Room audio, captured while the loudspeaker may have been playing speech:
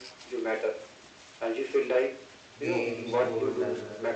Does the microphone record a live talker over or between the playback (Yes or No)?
Yes